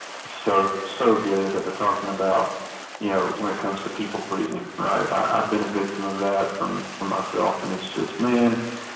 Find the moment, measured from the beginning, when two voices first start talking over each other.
none

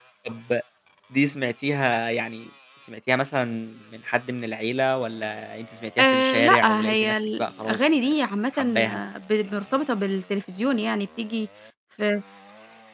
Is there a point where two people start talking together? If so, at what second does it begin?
6.0 s

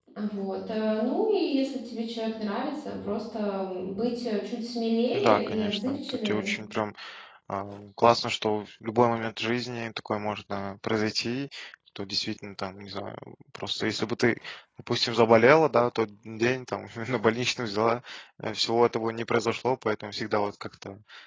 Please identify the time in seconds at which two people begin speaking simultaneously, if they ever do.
5.1 s

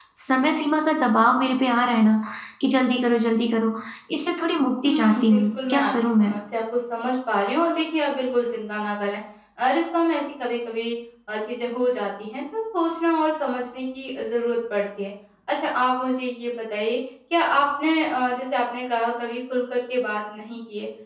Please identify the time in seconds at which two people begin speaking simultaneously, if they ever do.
4.8 s

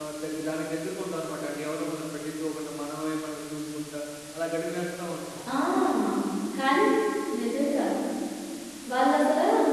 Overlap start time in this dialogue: none

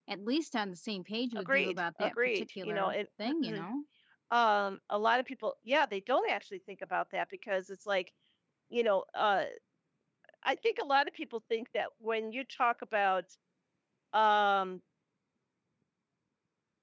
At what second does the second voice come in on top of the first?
1.4 s

